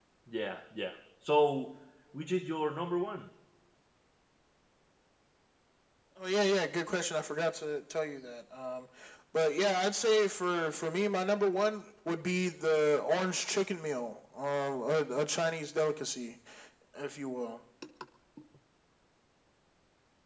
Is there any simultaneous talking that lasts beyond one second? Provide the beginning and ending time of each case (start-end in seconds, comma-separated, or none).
none